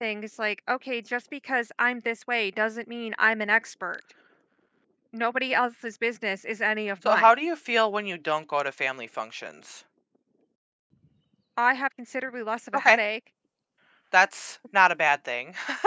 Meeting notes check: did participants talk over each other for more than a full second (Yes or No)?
No